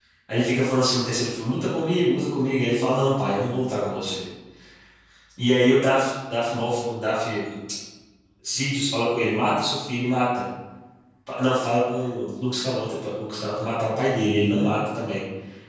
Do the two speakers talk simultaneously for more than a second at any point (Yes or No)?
No